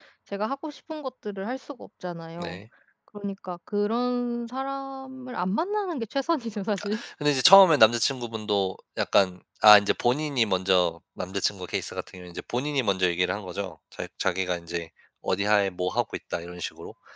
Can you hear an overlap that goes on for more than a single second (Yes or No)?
No